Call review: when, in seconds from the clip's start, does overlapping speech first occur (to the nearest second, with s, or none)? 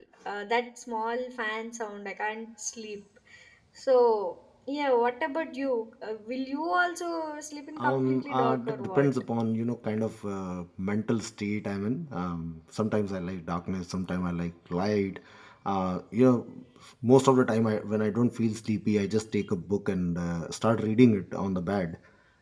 8 s